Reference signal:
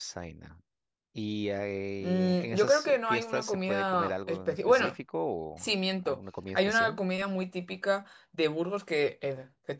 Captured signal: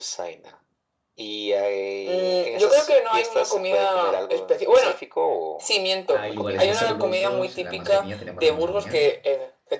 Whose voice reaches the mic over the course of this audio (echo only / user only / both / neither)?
both